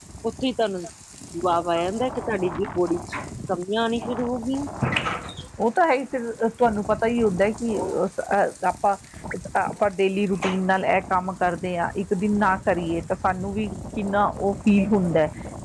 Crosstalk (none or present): none